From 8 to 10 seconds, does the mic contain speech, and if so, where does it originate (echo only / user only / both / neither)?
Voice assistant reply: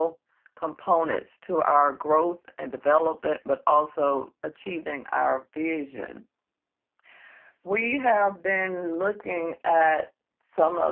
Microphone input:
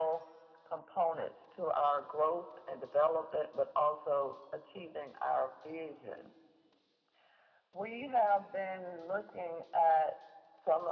echo only